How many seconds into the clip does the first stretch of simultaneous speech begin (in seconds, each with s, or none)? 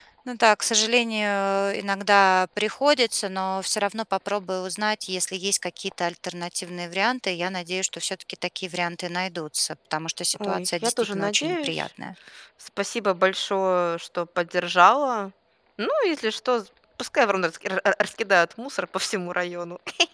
10.3 s